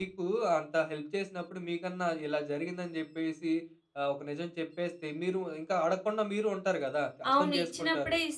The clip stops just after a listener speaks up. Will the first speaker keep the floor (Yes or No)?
No